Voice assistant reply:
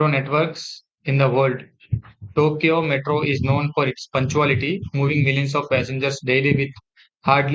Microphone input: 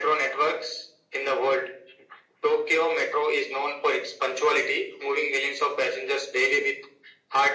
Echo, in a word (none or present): present